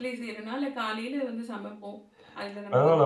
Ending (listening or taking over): taking over